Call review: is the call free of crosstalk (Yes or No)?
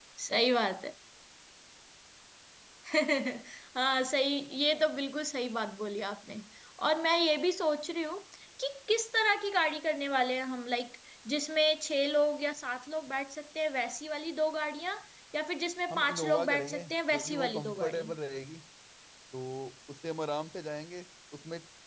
No